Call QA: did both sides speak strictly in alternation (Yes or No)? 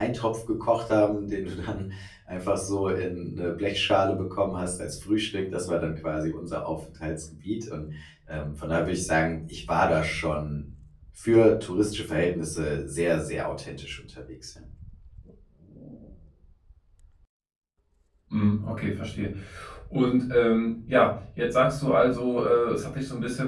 Yes